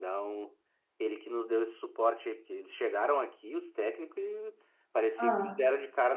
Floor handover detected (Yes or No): No